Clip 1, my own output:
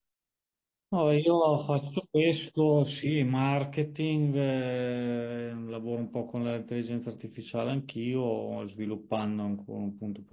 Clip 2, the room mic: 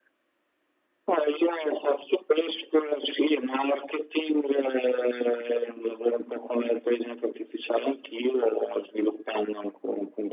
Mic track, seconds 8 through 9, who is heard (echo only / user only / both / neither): echo only